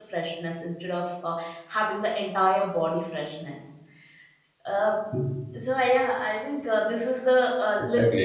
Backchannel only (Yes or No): Yes